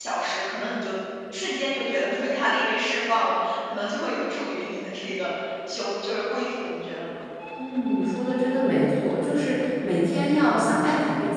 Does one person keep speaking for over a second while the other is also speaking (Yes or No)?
No